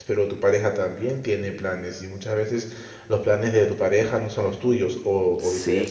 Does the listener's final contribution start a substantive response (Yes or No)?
Yes